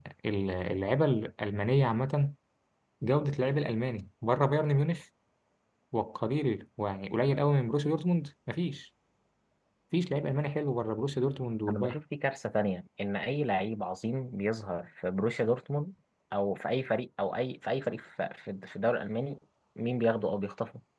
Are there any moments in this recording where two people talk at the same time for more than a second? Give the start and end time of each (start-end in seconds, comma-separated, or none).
none